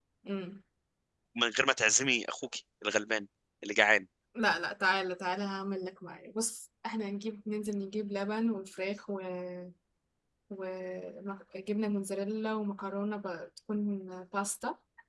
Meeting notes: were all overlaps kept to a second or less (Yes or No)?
Yes